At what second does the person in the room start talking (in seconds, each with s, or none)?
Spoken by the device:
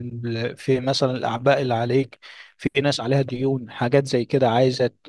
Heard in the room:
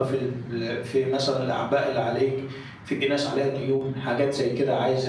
none